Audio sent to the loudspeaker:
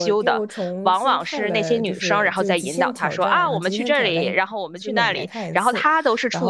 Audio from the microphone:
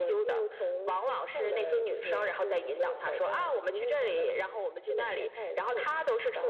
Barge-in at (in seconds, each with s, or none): none